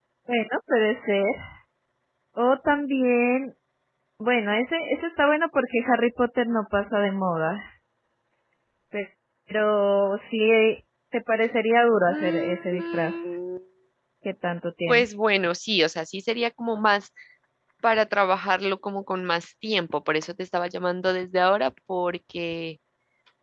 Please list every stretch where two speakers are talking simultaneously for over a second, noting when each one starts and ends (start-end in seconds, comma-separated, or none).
12.1-13.3